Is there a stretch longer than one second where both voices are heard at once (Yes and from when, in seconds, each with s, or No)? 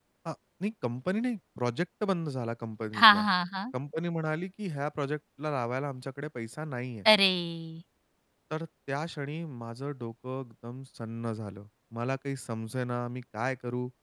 No